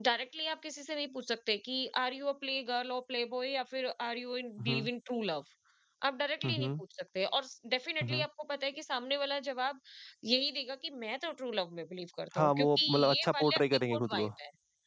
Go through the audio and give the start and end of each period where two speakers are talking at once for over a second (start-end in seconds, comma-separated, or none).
12.4-14.3